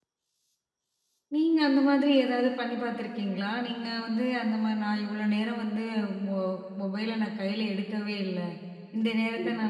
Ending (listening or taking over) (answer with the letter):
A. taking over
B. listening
B